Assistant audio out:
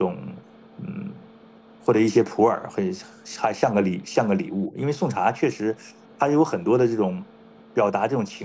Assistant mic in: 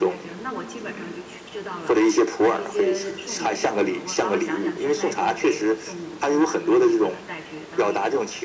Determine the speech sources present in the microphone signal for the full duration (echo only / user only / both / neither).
both